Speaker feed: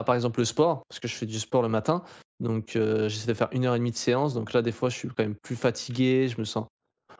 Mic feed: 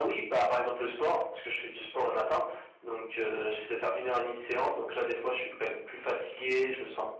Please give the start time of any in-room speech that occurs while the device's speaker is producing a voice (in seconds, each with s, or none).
none